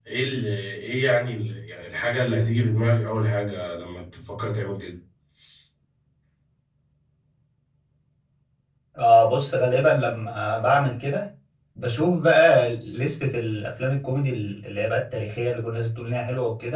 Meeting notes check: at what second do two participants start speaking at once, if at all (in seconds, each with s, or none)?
none